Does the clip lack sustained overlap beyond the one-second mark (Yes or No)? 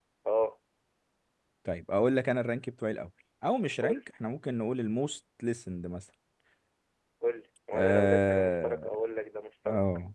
No